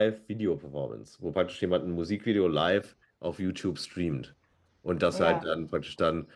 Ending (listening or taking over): listening